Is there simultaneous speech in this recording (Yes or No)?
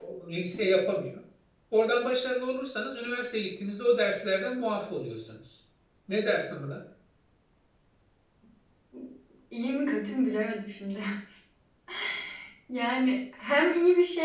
No